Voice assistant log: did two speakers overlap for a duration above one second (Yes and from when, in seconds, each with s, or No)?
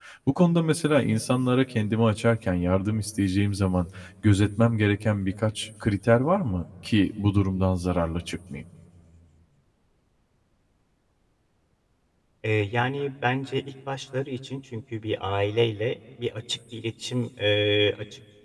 No